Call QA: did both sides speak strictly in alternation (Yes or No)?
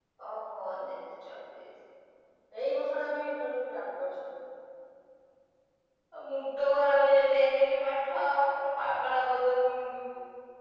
Yes